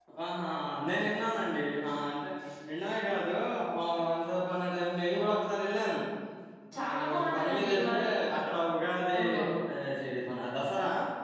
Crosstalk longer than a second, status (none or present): present